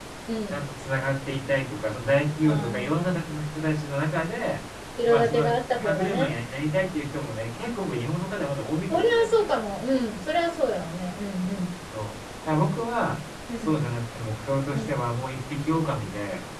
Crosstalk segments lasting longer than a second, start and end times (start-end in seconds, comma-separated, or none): 5.0-6.3